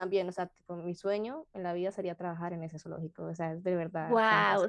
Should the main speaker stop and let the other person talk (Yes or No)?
Yes